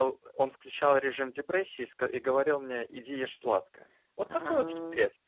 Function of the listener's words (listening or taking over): listening